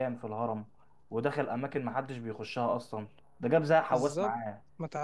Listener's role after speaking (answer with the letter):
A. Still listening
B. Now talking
B